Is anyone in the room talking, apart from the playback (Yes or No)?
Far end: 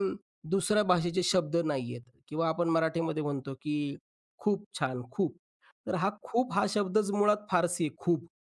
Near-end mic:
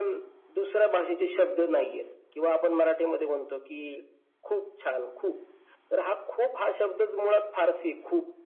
No